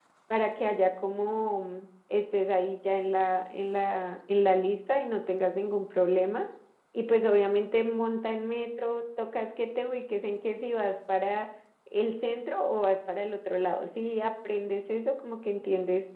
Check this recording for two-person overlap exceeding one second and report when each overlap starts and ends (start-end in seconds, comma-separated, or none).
none